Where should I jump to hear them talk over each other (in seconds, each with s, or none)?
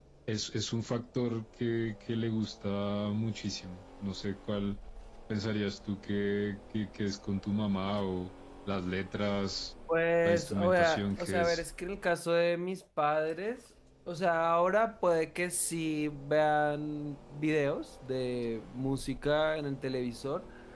10.2 s